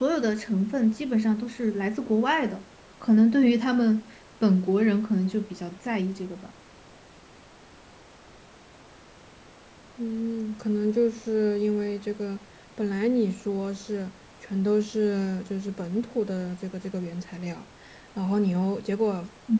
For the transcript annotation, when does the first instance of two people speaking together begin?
none

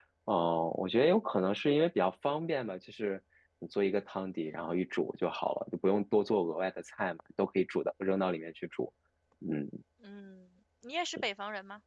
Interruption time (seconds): none

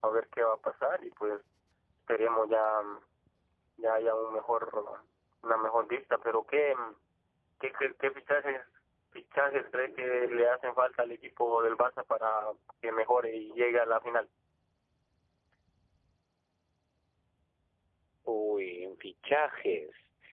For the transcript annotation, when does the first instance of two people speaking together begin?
none

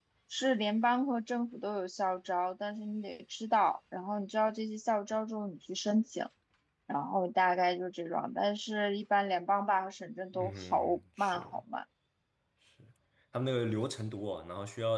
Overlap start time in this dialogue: 10 s

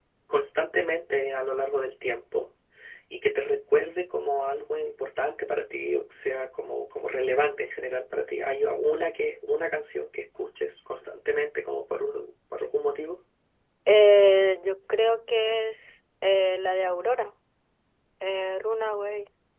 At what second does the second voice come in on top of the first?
none

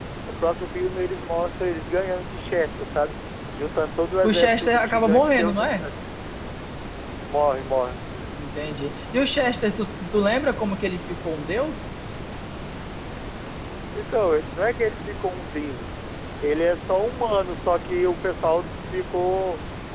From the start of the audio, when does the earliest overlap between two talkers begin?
4 s

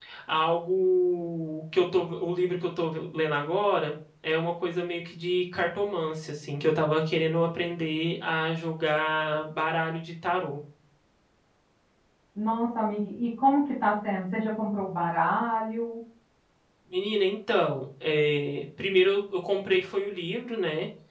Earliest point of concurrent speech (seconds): none

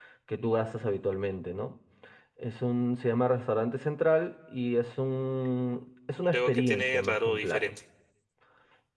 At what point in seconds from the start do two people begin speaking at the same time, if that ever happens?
6 s

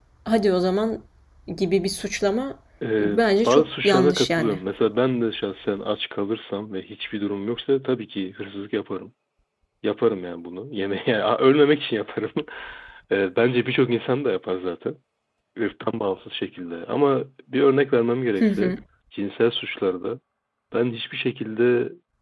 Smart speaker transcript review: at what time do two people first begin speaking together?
3 s

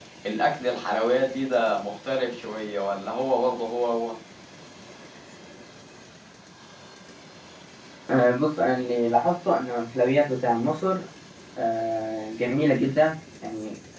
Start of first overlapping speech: none

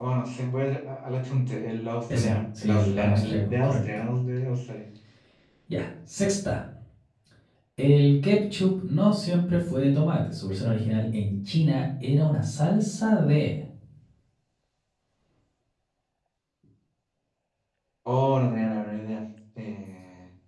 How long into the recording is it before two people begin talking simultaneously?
2 s

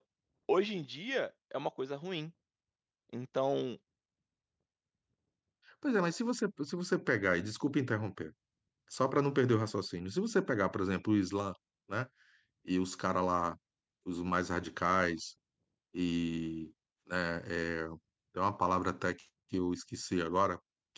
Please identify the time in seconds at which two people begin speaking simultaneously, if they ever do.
none

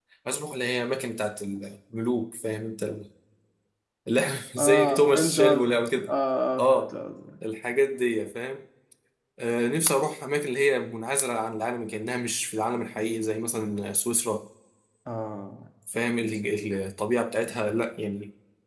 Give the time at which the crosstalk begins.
5 s

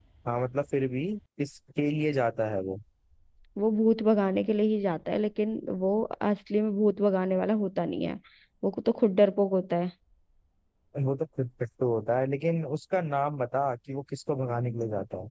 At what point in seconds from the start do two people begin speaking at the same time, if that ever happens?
none

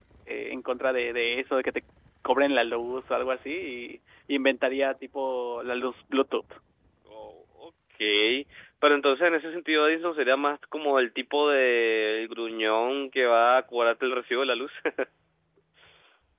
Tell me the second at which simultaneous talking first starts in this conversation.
none

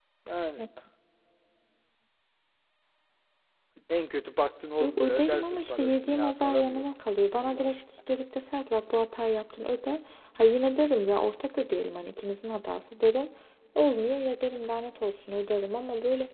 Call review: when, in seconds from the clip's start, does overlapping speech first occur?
5 s

